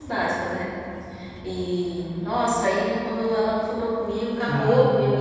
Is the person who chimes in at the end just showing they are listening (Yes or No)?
Yes